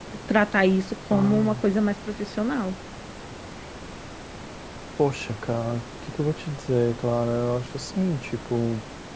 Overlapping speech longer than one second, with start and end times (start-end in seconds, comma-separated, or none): none